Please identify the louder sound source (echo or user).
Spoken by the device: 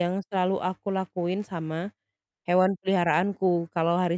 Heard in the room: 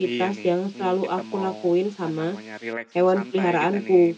echo